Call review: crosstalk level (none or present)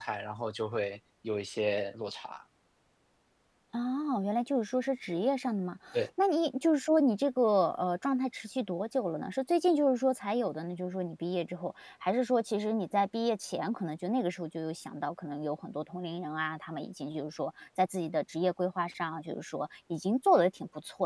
none